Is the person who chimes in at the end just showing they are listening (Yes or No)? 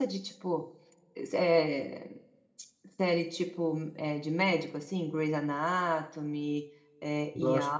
No